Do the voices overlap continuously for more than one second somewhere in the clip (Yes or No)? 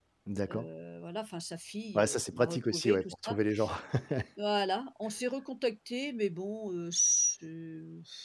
Yes